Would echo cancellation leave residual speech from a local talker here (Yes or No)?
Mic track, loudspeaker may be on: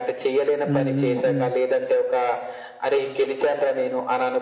Yes